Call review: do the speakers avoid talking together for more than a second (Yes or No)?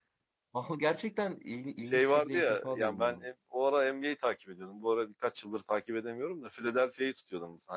No